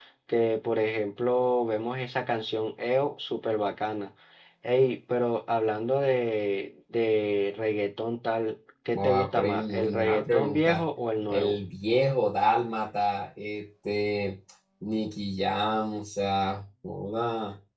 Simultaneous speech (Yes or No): Yes